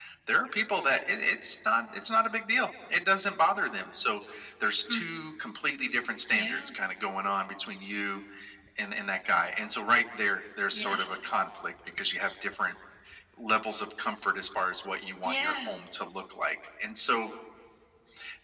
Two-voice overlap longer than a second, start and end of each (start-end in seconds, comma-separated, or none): none